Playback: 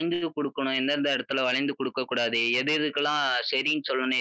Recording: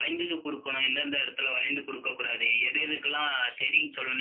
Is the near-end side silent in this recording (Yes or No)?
Yes